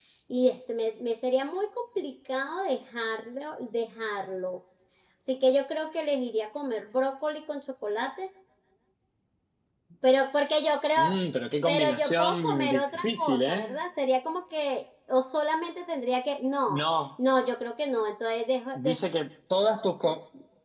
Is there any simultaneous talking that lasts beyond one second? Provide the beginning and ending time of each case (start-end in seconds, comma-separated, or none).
11.7-13.8